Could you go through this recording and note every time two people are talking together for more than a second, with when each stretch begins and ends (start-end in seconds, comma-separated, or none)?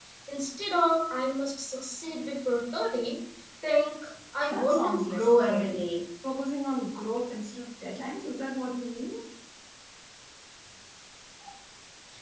4.5-5.8